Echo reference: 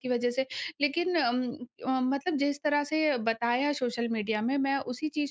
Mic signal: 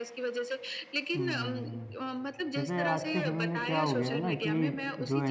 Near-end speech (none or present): present